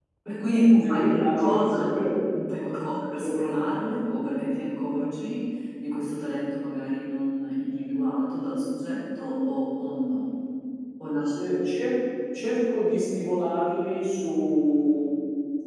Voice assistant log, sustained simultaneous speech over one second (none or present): present